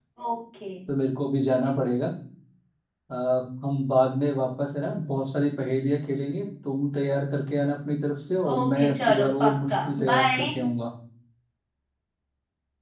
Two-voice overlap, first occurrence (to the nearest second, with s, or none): 8 s